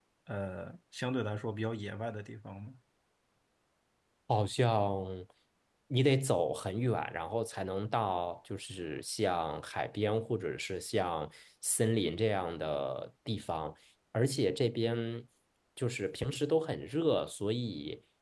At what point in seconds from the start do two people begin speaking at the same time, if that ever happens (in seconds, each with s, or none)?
none